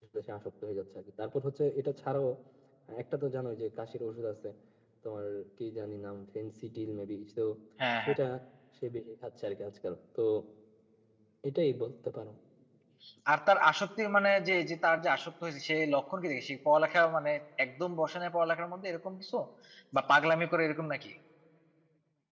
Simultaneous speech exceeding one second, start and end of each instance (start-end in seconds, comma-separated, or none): none